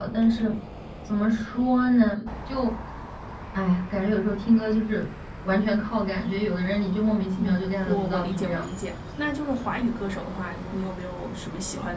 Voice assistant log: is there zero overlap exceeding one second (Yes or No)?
No